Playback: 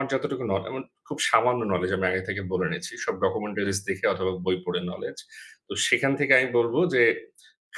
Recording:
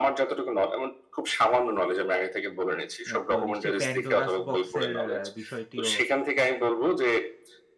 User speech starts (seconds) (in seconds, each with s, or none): 3.1 s